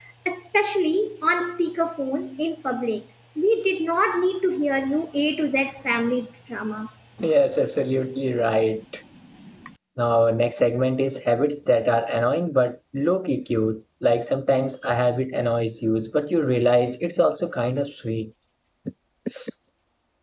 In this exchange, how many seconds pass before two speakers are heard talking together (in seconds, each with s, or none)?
none